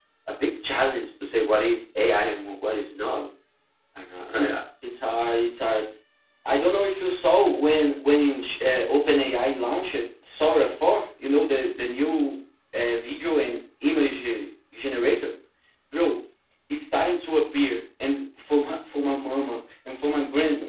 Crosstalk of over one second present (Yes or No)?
No